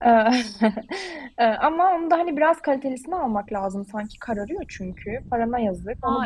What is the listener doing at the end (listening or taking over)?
taking over